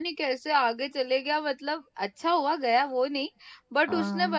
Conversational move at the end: listening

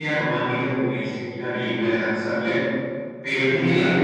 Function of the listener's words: listening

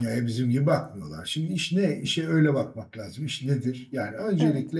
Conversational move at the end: listening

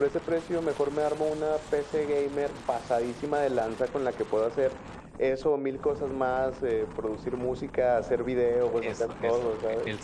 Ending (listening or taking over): taking over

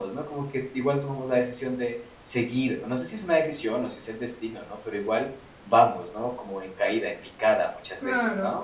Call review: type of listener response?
taking over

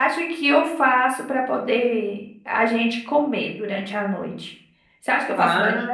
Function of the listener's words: listening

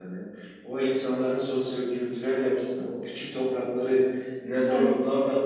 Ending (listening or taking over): listening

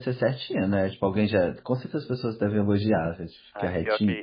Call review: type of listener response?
taking over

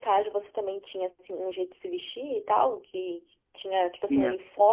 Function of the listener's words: listening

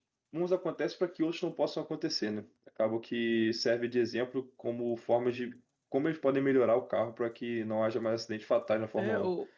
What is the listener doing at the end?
taking over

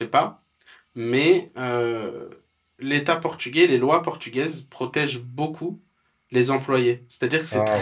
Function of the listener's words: listening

